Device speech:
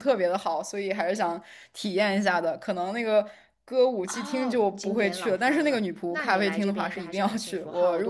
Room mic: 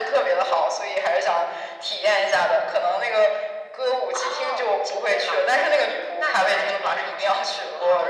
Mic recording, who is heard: echo only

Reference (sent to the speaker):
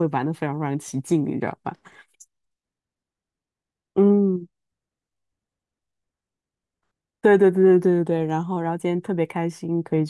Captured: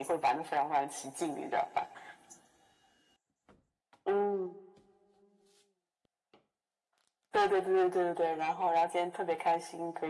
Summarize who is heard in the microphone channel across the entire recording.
echo only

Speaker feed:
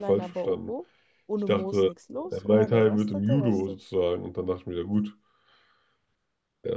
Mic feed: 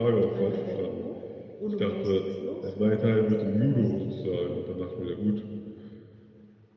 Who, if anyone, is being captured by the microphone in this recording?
echo only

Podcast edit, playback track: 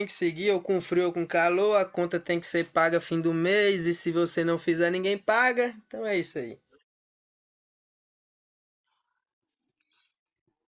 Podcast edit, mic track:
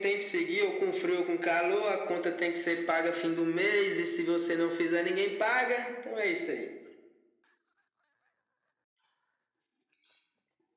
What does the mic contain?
echo only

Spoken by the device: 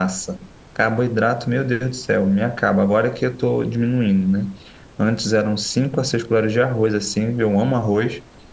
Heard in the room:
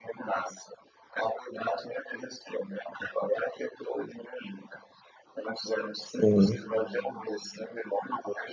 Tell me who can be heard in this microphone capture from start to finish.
both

